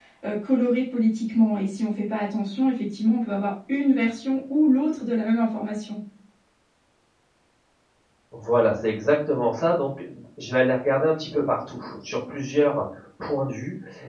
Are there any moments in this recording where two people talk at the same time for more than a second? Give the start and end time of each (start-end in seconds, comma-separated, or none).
none